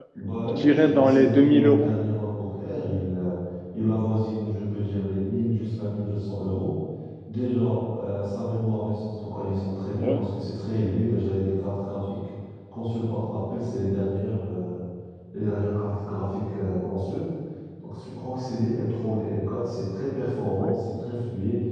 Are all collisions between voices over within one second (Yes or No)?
No